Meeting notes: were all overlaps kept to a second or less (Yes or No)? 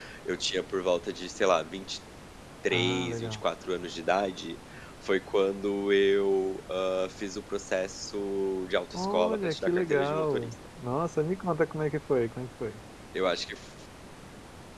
No